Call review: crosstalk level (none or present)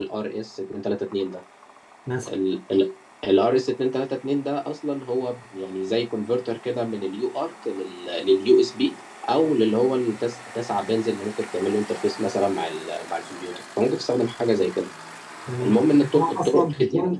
present